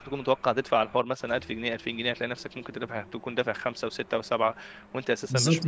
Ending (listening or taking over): taking over